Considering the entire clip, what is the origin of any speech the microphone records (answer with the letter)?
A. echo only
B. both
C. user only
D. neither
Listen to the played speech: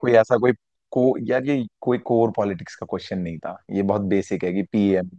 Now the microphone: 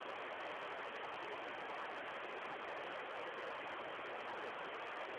D